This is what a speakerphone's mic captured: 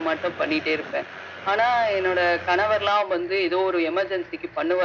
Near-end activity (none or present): none